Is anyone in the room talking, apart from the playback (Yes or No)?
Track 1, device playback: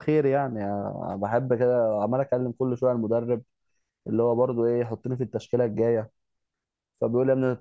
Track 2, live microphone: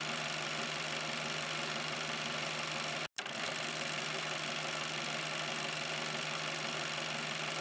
No